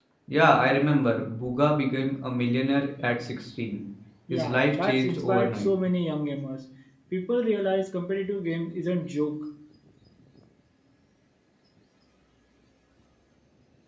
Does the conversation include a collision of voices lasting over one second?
Yes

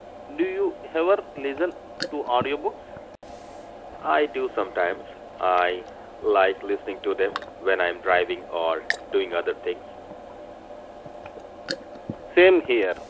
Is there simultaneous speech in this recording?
No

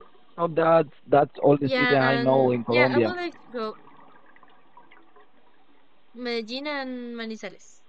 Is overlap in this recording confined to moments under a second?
No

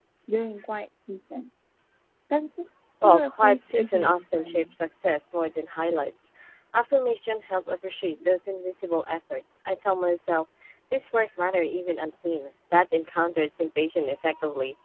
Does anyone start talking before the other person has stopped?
Yes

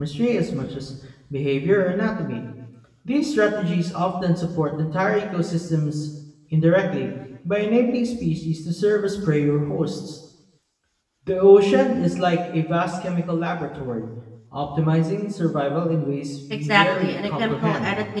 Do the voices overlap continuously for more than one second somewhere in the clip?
Yes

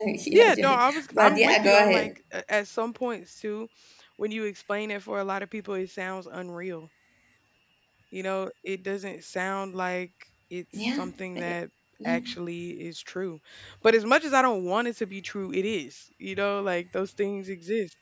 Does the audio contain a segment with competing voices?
Yes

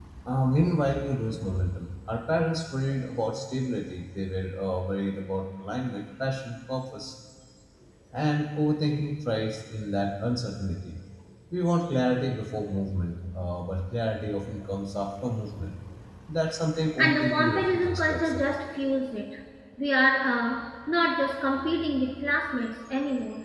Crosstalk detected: Yes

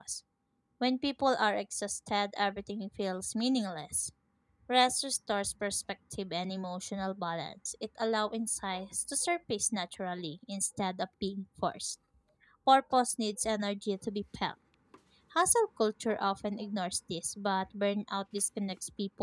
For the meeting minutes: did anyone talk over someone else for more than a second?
No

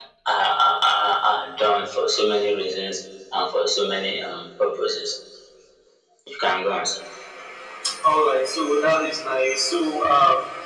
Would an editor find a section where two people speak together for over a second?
No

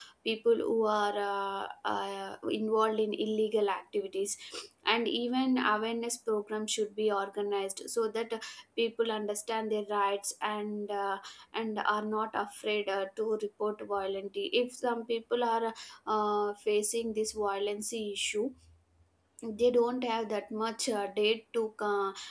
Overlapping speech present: No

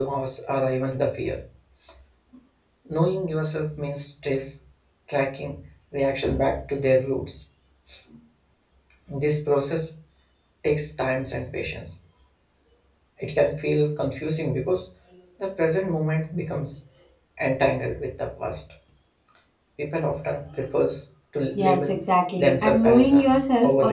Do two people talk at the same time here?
Yes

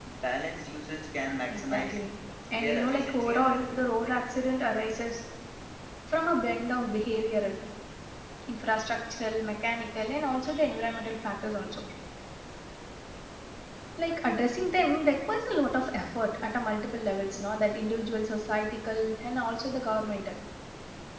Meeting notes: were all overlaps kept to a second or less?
No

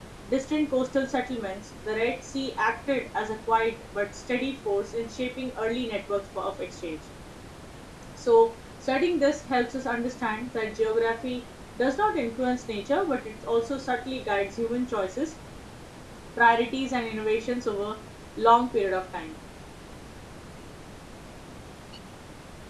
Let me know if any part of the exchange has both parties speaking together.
No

